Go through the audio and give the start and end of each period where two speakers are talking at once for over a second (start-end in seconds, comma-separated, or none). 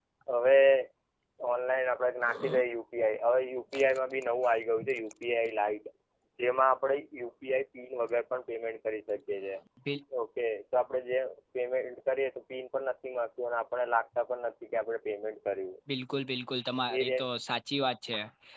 none